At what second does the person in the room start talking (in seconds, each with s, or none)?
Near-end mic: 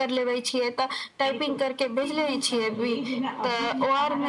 none